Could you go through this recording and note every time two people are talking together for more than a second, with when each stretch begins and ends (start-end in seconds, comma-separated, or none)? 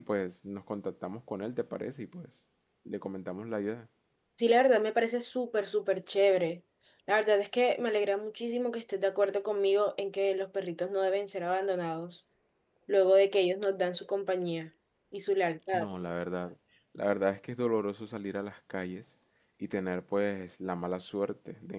none